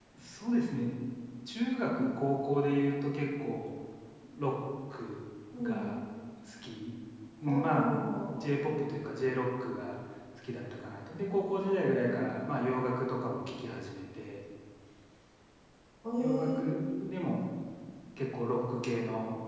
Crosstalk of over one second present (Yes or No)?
No